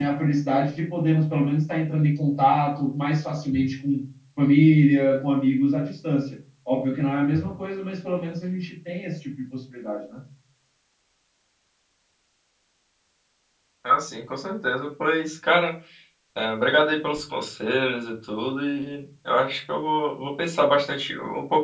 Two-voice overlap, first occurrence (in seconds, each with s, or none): none